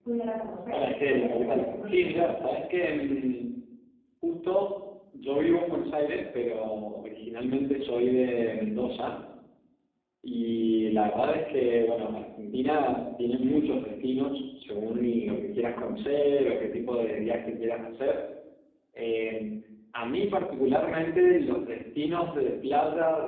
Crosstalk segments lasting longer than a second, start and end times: 0.7-2.4

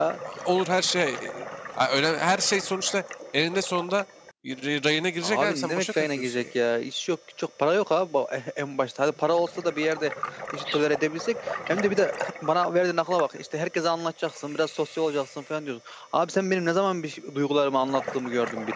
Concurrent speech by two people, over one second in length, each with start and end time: 5.2-6.4

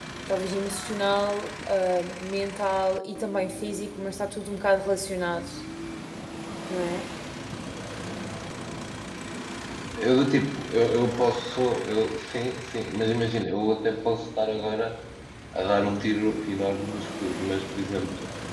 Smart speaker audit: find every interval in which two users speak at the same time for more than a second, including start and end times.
none

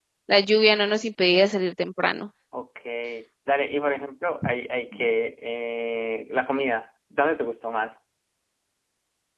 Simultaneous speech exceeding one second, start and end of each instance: none

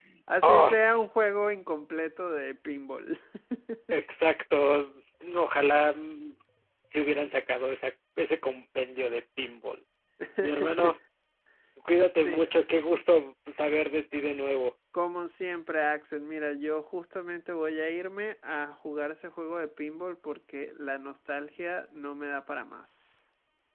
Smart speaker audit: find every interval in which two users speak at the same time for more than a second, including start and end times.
none

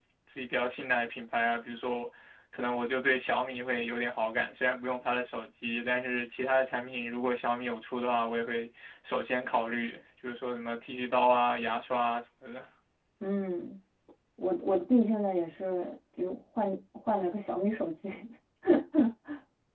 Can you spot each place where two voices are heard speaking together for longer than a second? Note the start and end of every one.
none

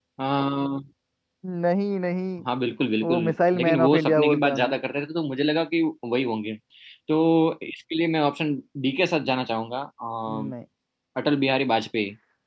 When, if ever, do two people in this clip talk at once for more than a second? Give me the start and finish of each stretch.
3.5-4.8

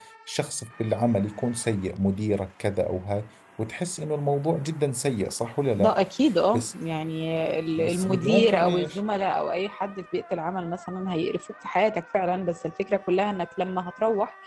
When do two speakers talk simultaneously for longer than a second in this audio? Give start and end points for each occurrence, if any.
7.8-9.0

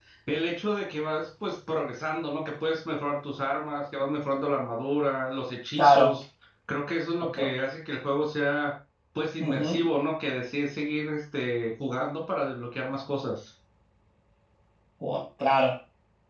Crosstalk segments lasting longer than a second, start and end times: none

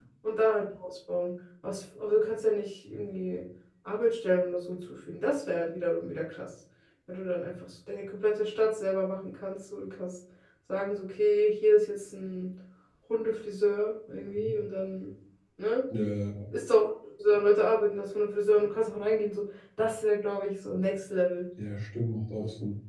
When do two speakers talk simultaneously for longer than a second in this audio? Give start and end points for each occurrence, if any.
none

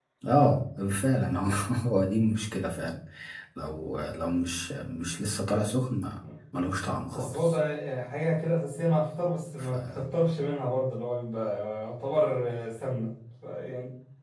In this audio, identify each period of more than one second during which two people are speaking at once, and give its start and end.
none

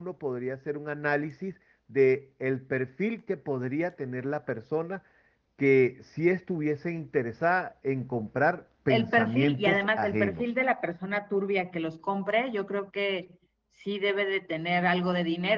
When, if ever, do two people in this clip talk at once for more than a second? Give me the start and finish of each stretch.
8.9-10.4

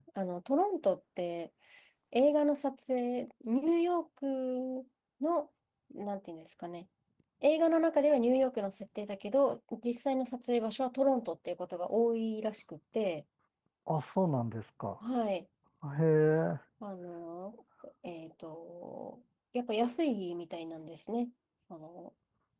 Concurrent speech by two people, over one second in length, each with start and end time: none

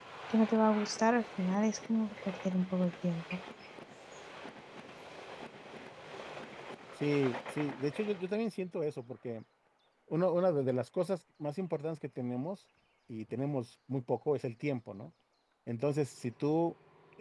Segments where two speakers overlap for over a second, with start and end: none

